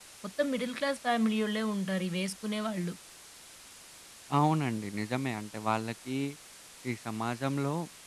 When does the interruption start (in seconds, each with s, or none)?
none